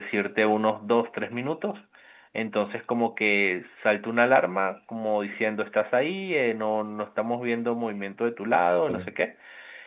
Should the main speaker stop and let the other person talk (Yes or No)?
No